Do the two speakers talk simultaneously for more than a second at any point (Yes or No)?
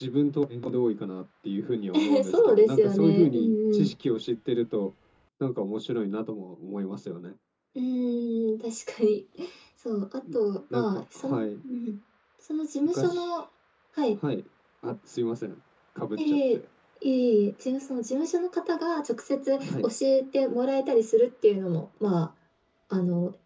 Yes